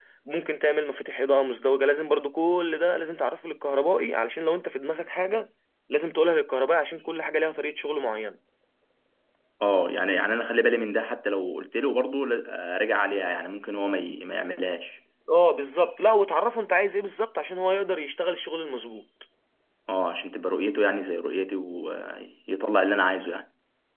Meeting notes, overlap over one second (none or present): none